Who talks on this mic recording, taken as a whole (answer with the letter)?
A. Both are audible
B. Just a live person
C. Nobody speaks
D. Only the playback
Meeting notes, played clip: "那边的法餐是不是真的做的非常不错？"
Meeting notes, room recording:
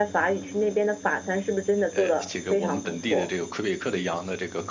A